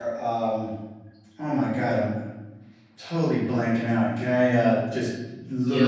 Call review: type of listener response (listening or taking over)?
taking over